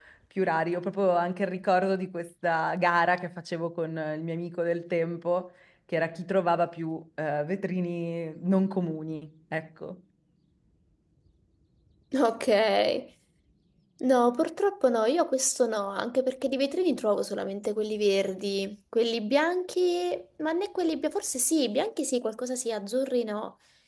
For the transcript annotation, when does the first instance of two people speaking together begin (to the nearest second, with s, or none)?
none